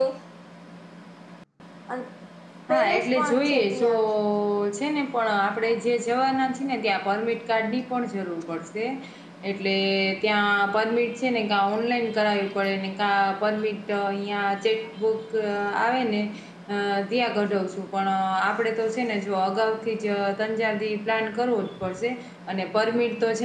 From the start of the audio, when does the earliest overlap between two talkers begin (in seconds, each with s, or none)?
2.7 s